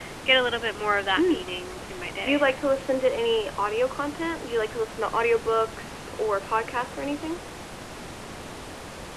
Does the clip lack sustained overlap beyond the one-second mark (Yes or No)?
Yes